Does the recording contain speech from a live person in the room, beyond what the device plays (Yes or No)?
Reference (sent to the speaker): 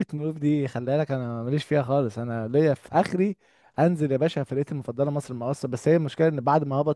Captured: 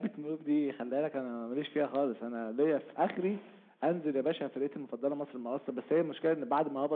No